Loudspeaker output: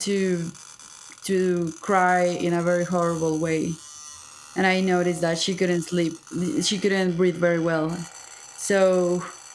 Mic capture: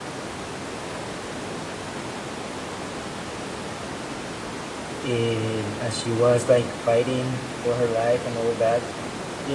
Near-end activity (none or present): present